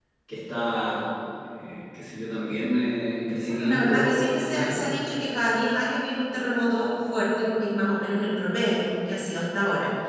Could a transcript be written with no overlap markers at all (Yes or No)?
No